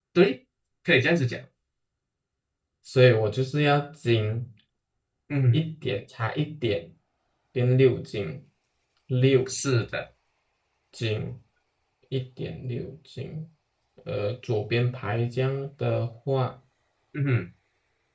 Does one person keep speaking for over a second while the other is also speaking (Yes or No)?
No